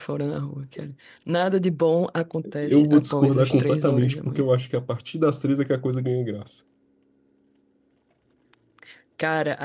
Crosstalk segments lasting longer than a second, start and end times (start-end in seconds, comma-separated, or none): 2.6-4.4